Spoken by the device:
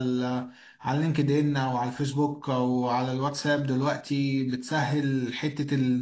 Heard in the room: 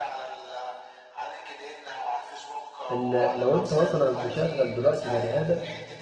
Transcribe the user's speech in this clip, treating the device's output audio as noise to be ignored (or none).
ال- لو انت مثلا مشغل دلوقتي بني آدم